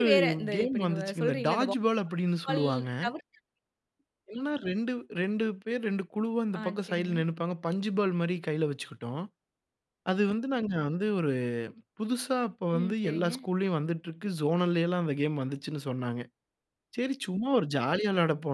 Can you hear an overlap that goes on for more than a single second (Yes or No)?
Yes